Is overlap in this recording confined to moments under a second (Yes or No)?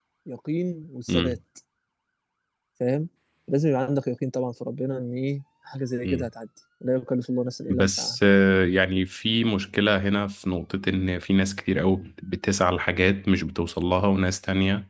Yes